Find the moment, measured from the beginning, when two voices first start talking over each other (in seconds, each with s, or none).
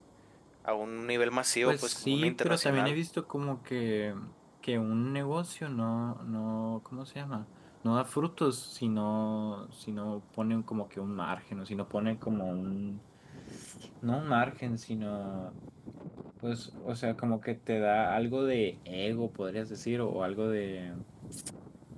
1.6 s